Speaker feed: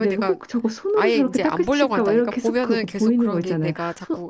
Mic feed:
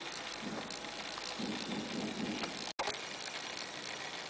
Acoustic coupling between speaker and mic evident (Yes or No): No